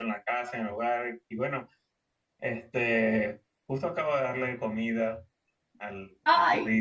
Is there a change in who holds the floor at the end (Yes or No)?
Yes